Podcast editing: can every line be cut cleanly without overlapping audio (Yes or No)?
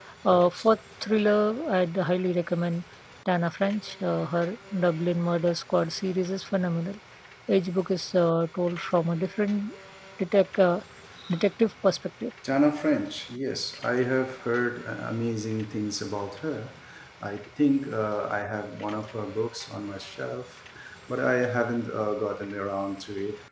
Yes